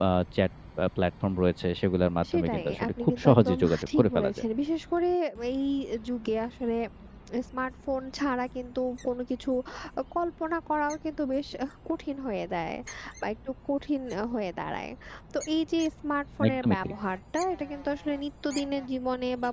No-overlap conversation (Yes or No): No